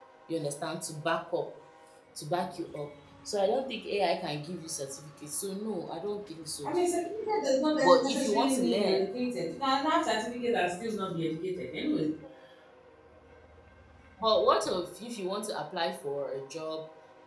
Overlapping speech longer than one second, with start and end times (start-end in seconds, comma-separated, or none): 7.8-9.1